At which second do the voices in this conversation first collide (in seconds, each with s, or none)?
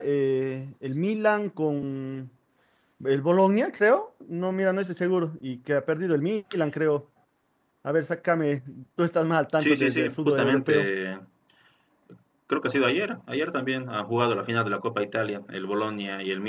9.6 s